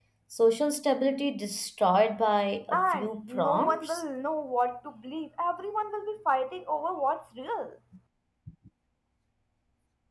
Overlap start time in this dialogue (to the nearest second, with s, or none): 3 s